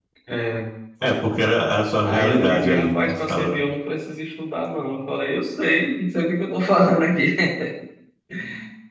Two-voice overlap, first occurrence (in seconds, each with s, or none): 2.0 s